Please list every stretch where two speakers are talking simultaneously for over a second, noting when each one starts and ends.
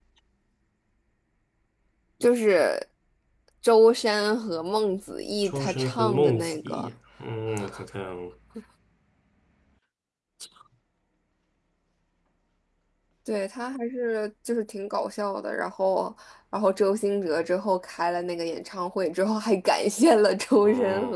5.4-6.9

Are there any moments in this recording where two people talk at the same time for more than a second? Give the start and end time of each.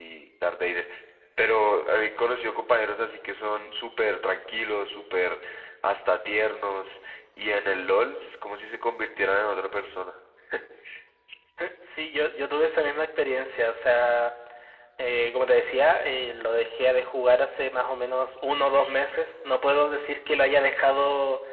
none

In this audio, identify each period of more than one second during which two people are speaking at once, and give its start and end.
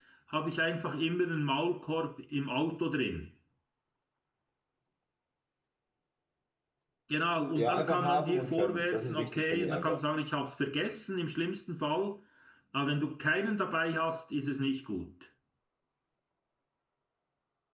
7.5-10.0

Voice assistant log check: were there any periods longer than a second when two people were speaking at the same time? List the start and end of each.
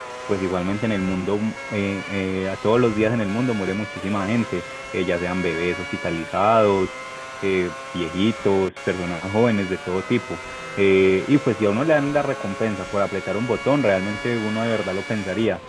none

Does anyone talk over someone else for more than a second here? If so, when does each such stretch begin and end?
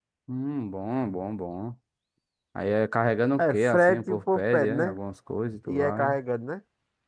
3.4-4.9

